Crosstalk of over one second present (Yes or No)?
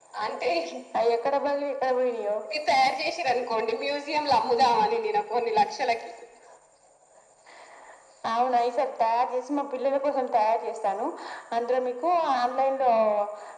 No